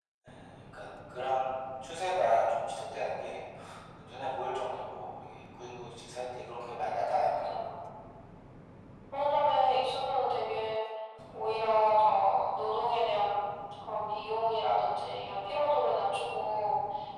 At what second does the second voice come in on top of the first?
6.5 s

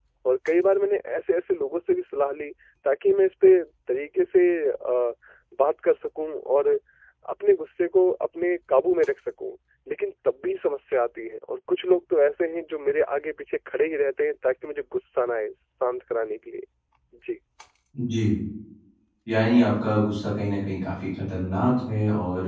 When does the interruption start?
none

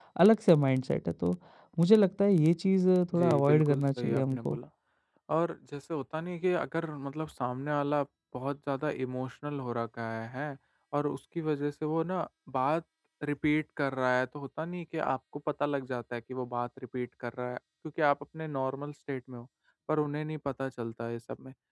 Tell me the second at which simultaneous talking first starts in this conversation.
3.1 s

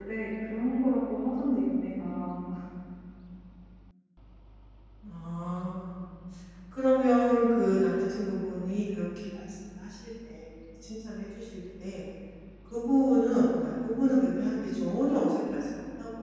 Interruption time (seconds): none

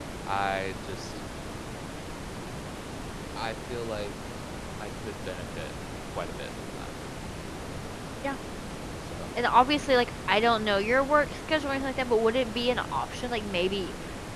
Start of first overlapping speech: none

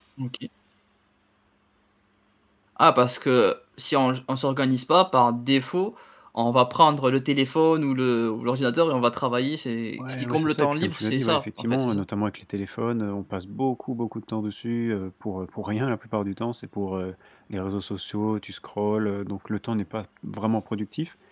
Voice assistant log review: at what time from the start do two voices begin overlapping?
10.0 s

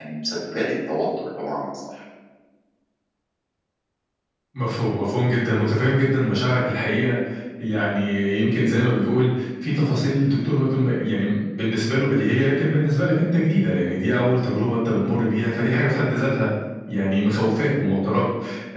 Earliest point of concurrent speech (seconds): none

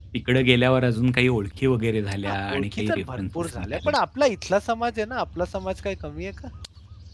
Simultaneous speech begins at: 2.2 s

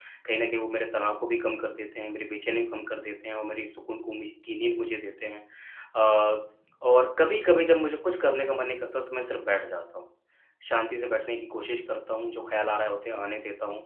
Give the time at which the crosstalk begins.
none

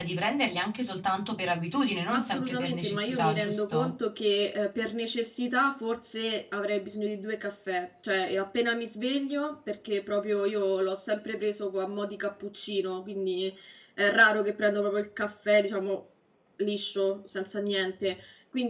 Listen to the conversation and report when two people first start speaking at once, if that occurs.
2.1 s

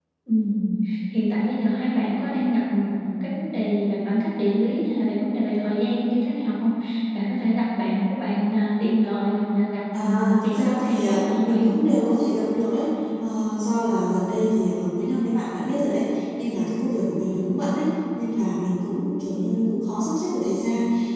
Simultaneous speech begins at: 9.9 s

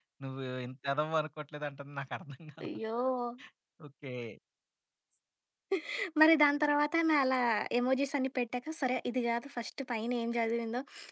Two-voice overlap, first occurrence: none

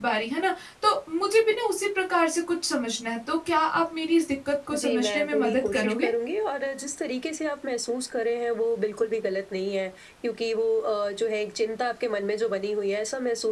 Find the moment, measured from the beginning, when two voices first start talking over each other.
4.7 s

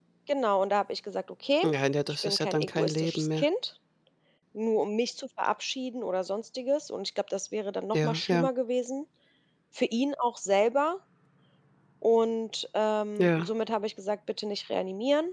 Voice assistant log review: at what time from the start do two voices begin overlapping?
2.2 s

